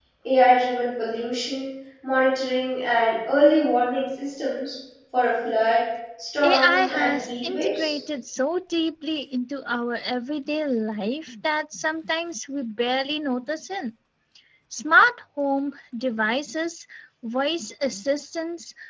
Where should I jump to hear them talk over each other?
6 s

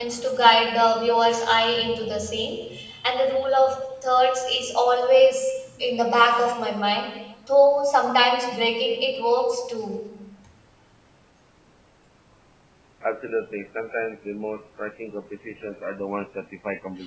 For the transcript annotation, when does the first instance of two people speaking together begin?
none

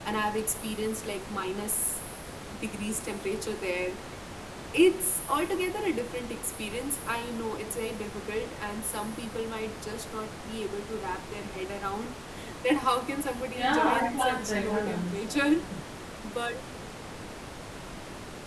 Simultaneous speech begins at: 14 s

